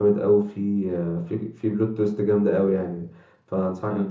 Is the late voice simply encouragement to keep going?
Yes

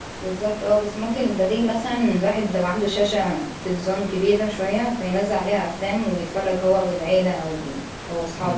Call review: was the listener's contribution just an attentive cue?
No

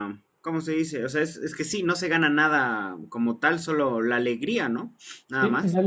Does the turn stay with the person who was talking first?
No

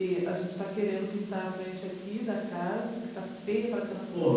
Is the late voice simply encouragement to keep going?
No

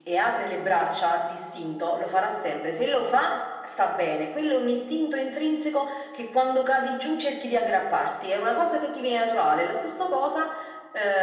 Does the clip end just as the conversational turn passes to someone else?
No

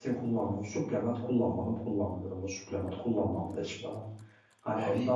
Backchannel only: Yes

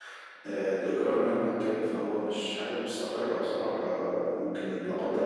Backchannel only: Yes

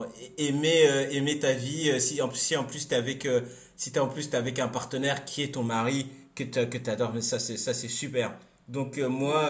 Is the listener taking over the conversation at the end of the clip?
No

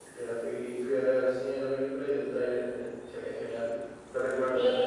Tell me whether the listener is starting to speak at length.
Yes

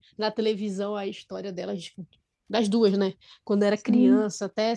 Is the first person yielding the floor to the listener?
No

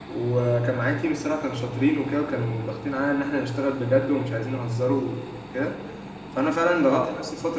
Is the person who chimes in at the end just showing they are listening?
Yes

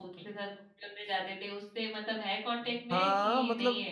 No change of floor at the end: No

